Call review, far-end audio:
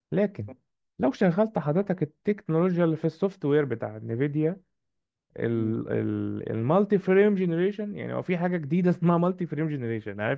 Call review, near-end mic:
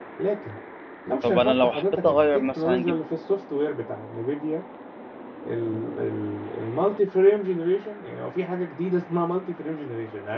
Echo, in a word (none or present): present